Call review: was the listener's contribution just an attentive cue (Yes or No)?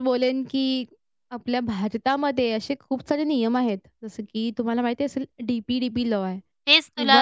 No